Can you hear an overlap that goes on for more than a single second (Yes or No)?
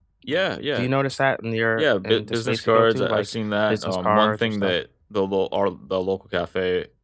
Yes